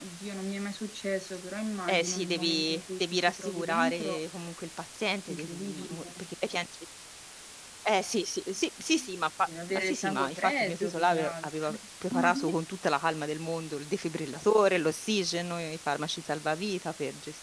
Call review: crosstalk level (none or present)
present